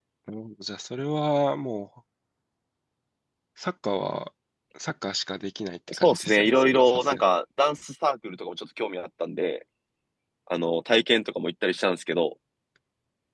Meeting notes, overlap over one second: present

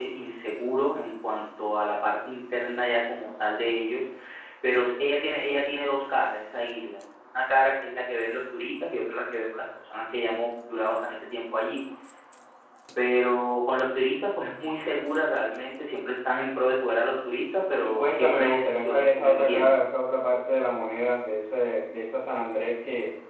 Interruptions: present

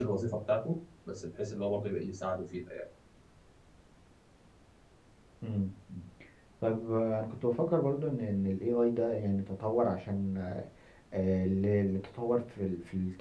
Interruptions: none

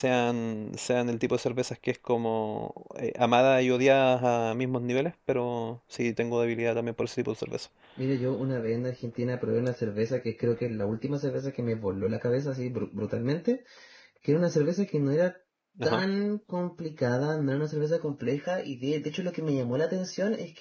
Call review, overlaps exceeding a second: none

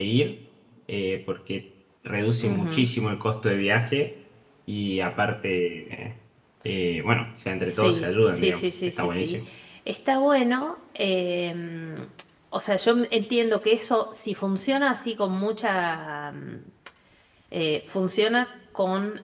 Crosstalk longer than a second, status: present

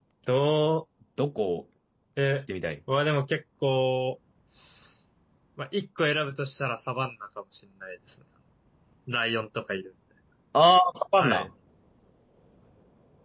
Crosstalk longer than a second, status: none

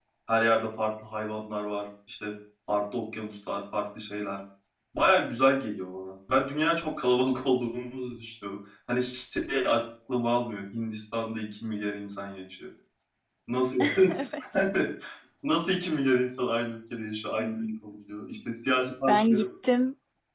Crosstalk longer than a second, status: none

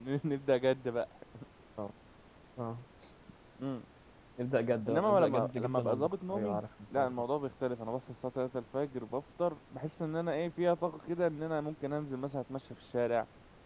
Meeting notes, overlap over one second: present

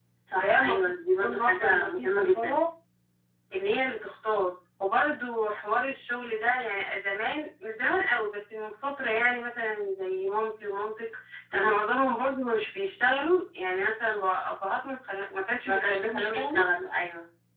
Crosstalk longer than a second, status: present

